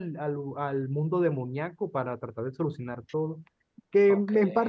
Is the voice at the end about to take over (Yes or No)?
No